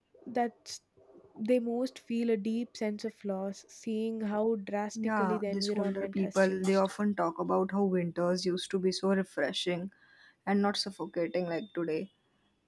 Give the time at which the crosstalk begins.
5.0 s

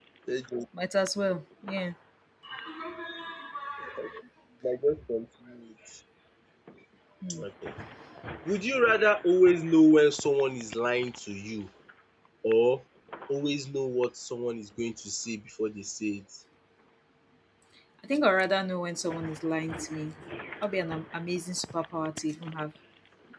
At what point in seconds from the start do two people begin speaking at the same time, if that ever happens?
none

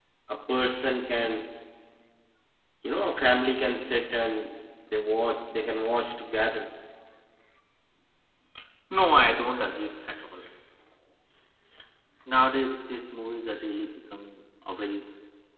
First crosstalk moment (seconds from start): none

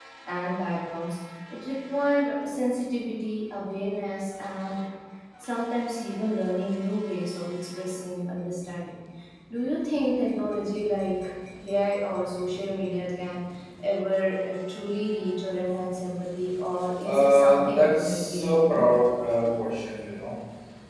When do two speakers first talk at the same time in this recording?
17.0 s

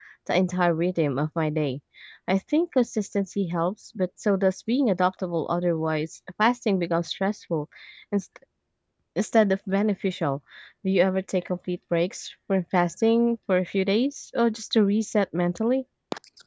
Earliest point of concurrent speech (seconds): none

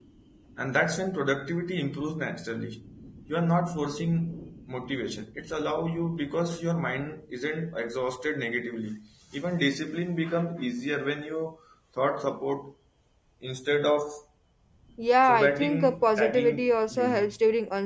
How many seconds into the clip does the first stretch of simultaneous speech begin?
15.2 s

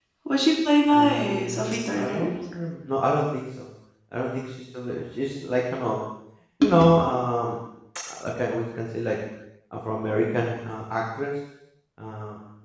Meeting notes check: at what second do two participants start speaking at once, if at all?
0.9 s

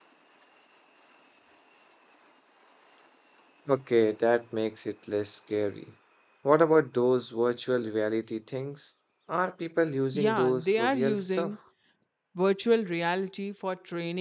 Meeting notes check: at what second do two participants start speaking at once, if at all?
10.1 s

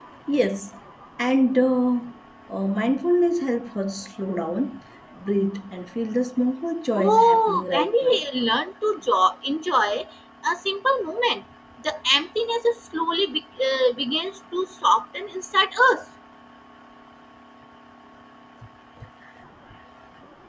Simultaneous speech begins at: 7.0 s

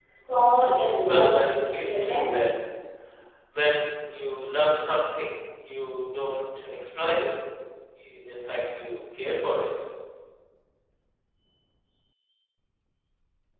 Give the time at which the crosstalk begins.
1.0 s

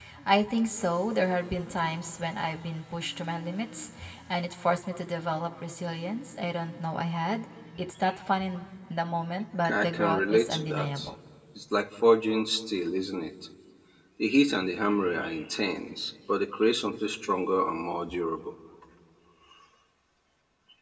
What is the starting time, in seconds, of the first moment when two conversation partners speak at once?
9.6 s

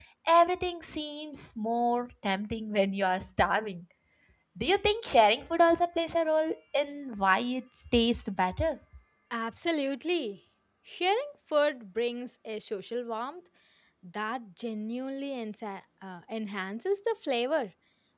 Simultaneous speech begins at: none

